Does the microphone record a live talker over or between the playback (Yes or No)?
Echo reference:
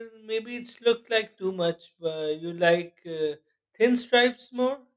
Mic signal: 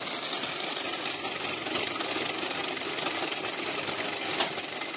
No